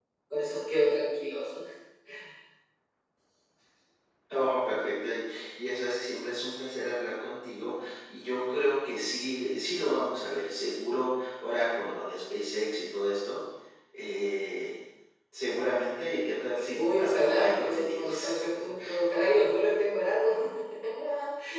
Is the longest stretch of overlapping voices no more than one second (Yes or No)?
No